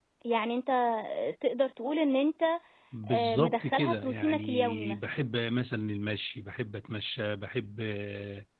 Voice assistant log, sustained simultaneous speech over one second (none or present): present